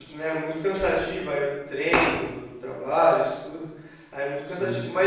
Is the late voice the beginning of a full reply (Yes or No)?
No